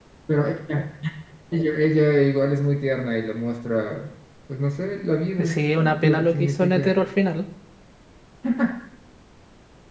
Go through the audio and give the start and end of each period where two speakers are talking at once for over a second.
5.4-6.9

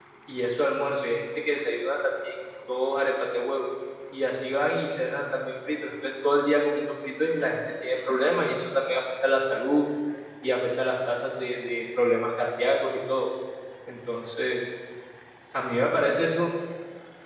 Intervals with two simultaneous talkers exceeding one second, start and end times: none

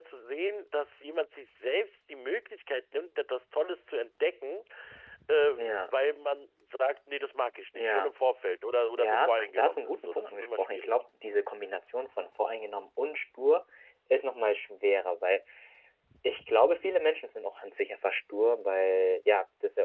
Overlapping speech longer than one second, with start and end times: 9.0-10.9

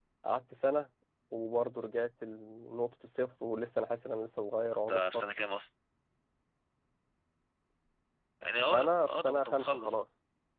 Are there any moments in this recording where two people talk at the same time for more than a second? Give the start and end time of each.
8.7-10.0

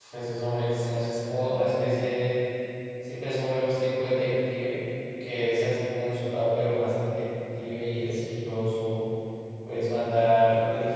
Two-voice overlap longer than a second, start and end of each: none

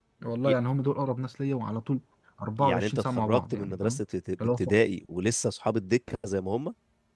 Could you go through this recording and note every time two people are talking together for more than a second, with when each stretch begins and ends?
2.6-4.0

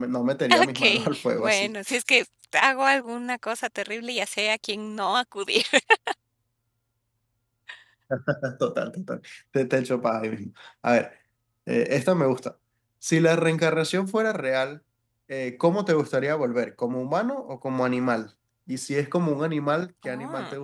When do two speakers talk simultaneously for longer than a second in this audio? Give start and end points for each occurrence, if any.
0.5-1.7

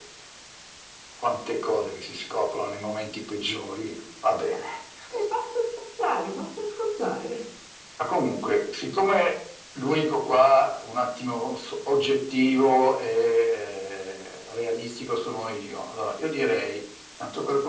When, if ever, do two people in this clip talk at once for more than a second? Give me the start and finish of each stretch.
none

